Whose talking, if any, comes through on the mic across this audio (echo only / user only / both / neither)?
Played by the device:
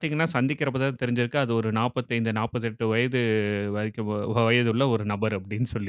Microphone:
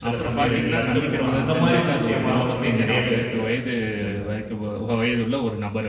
both